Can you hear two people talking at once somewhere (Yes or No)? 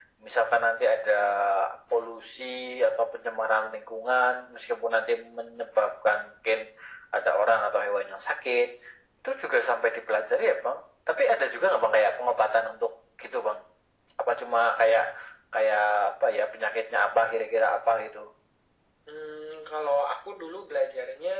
No